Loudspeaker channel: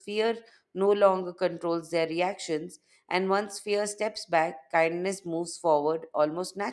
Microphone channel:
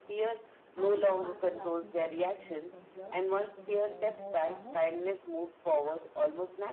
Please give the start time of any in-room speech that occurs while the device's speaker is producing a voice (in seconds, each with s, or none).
0.7 s